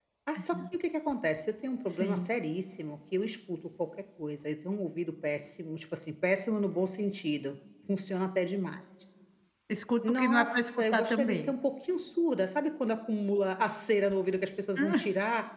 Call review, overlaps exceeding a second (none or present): present